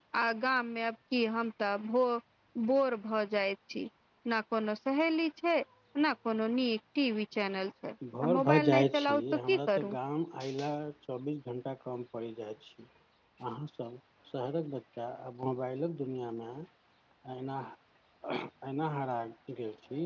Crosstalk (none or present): present